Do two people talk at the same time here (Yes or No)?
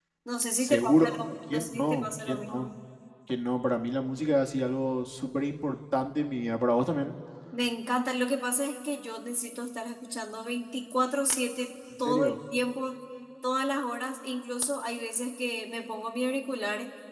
Yes